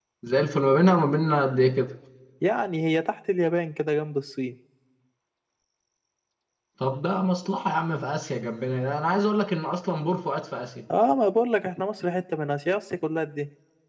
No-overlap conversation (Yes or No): Yes